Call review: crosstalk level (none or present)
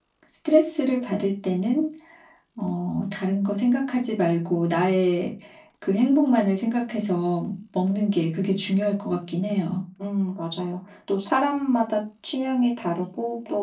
none